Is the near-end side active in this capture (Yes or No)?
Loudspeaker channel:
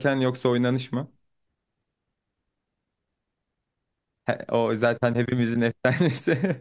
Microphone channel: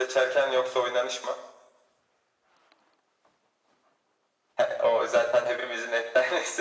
No